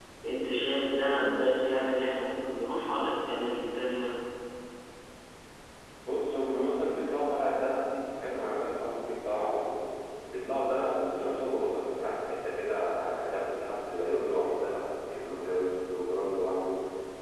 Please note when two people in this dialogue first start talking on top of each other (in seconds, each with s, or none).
none